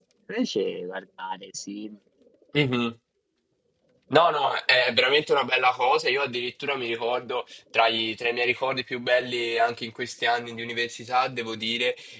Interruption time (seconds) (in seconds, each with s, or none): none